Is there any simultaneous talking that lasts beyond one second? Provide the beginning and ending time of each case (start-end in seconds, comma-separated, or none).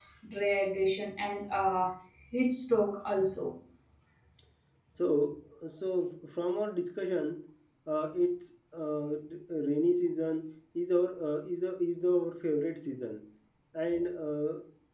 none